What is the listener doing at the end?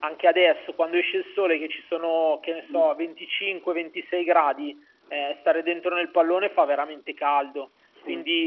listening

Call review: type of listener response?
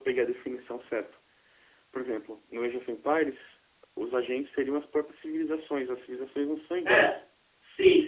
taking over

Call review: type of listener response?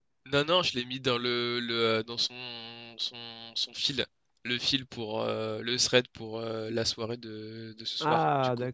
taking over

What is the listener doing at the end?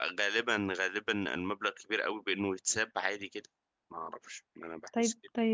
taking over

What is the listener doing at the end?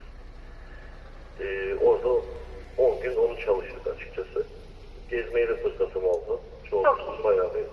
listening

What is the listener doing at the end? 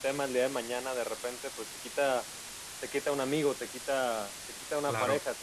listening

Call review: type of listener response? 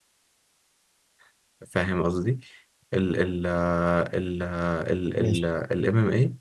listening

